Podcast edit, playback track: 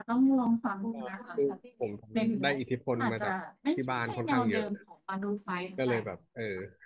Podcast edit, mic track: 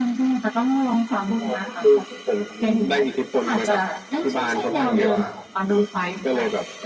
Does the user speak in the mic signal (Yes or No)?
Yes